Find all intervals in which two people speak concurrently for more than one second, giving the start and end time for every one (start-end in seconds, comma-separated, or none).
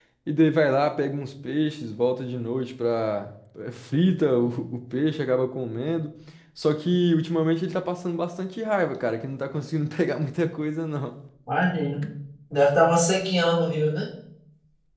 none